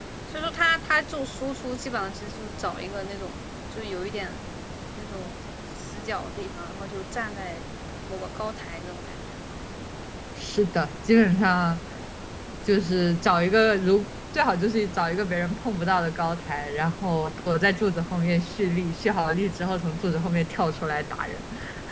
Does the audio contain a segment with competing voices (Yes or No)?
No